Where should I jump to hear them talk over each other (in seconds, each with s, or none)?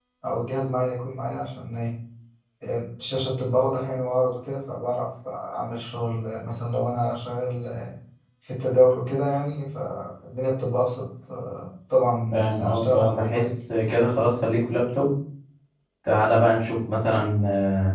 12.3 s